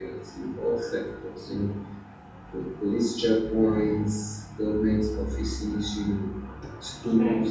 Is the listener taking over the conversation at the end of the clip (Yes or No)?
No